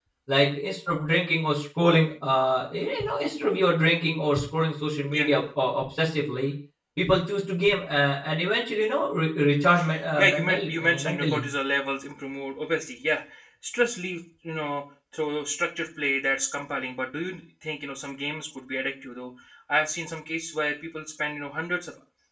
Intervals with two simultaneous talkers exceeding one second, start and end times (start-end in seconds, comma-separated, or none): 10.2-11.5